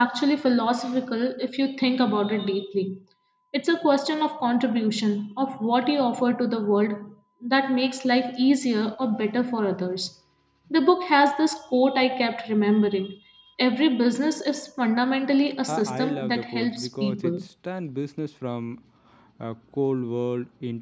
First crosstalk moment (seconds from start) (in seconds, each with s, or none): 15.7 s